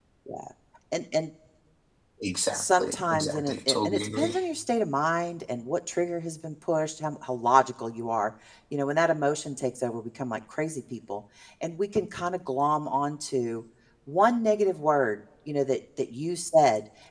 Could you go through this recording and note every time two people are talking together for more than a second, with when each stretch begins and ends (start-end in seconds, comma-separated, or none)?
2.5-4.3